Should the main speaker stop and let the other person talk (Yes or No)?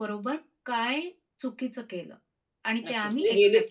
Yes